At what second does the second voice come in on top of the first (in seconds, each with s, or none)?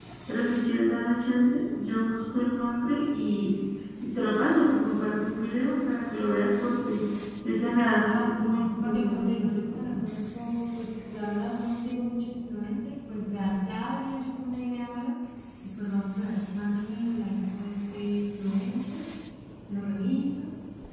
8.0 s